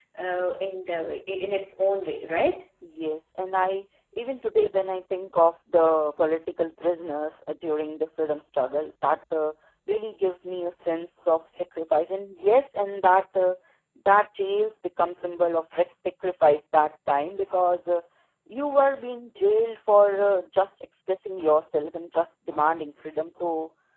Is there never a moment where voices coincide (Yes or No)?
Yes